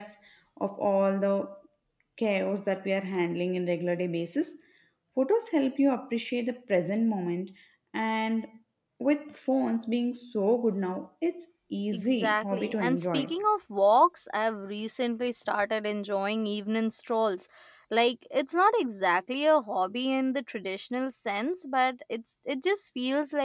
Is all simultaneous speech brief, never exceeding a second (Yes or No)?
No